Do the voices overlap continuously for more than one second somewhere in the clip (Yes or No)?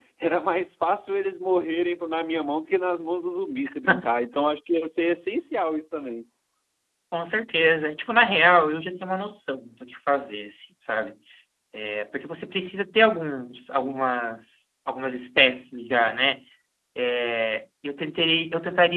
No